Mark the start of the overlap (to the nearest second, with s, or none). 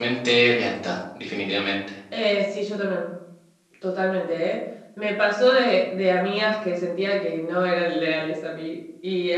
none